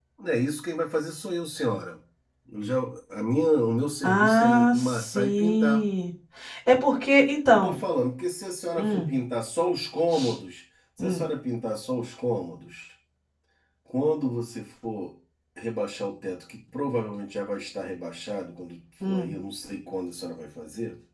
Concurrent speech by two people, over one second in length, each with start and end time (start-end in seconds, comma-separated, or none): 4.0-5.8